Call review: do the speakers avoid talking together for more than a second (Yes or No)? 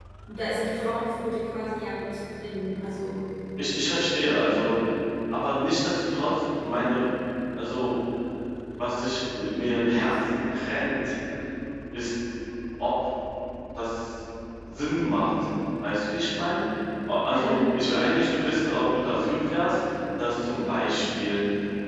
Yes